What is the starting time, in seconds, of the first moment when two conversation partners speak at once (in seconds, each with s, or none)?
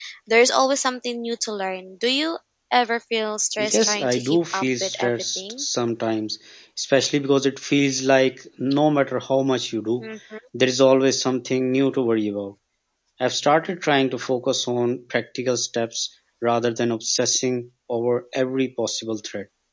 3.6 s